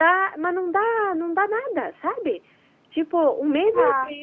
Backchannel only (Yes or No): Yes